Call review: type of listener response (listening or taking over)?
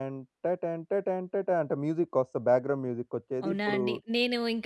taking over